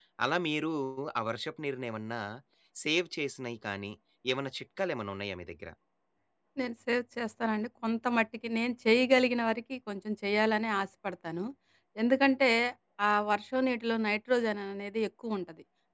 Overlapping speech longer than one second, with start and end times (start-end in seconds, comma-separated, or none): none